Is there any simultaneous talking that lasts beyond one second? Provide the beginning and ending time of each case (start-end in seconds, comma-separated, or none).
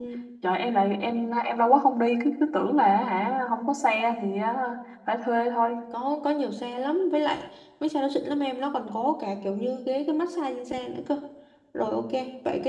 none